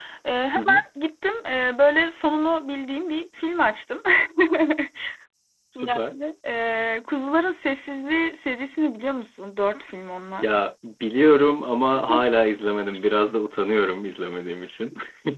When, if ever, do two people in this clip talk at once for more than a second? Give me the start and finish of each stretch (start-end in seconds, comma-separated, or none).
none